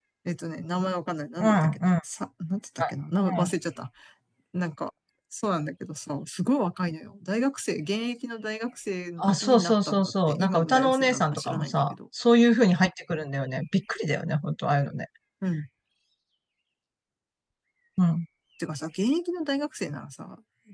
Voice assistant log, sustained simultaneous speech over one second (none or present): present